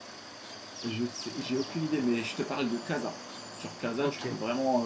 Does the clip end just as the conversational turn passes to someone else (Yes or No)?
No